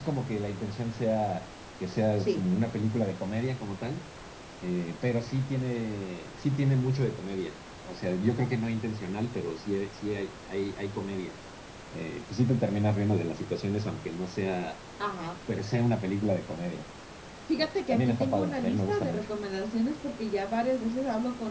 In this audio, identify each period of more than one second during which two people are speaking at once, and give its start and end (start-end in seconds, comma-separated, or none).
17.6-19.3